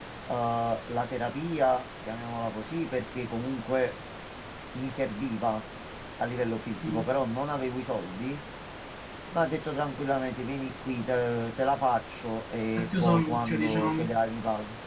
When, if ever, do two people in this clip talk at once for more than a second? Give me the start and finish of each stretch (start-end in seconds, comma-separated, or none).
12.8-14.2